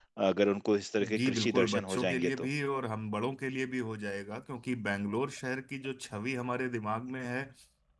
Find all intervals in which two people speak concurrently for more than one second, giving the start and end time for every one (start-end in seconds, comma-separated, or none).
1.0-2.5